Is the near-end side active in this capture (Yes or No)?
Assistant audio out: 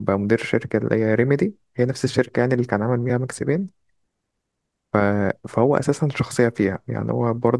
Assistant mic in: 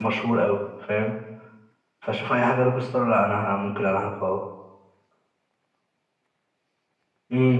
Yes